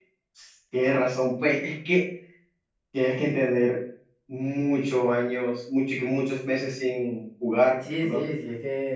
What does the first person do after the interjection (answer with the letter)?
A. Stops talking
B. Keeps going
A